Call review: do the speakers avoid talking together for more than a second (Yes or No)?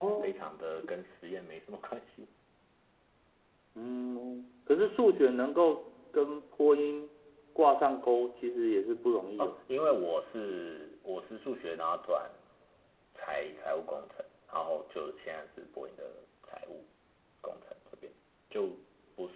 Yes